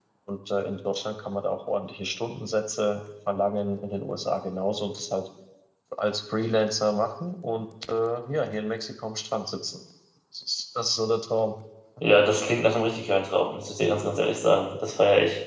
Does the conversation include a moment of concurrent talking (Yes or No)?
No